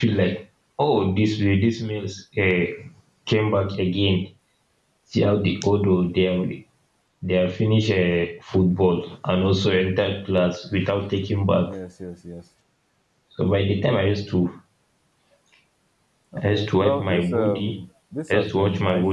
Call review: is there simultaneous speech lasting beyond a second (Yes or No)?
Yes